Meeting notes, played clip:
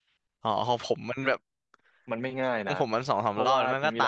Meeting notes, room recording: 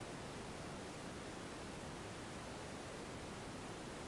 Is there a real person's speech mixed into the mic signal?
No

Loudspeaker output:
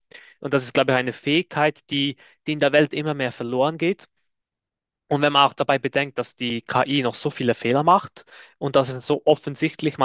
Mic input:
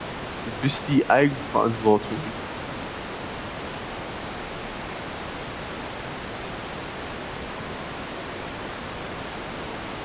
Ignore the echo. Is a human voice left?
Yes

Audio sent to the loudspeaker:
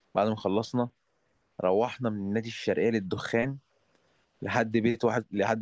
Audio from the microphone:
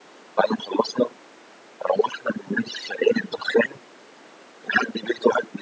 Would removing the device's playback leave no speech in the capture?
Yes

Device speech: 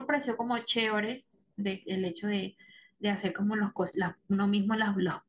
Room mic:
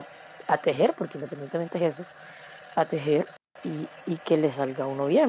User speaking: Yes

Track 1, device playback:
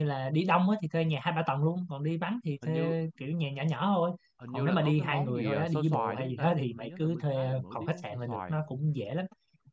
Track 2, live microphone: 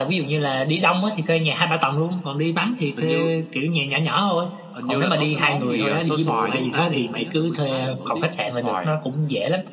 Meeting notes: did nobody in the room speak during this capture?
Yes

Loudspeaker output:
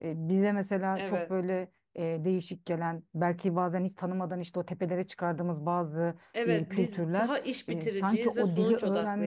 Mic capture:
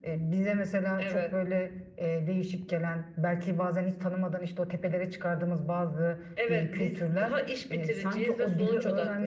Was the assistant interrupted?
No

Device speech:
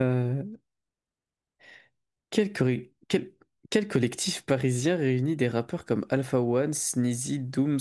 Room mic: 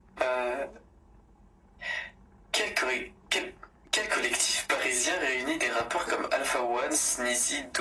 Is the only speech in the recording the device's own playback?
Yes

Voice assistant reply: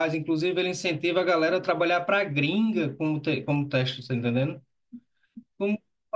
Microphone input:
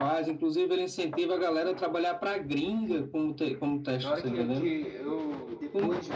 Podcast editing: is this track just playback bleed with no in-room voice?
No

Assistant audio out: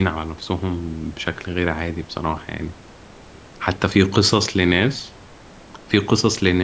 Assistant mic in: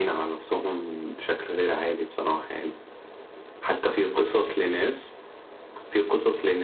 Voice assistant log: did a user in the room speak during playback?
No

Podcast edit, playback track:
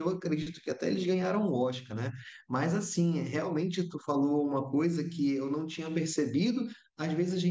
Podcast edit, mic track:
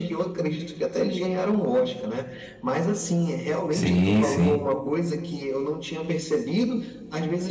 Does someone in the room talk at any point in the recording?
Yes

